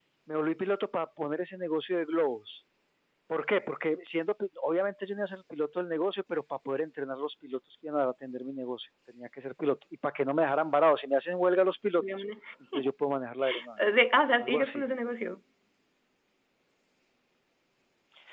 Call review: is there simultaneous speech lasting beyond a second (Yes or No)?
No